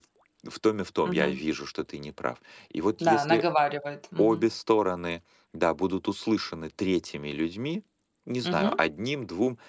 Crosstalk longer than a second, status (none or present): none